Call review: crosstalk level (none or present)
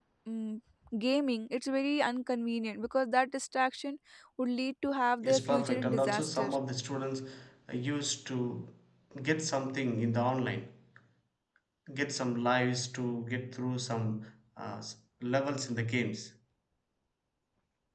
present